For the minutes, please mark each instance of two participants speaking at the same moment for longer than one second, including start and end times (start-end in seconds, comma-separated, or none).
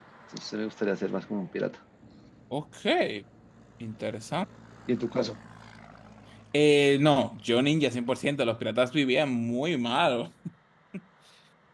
none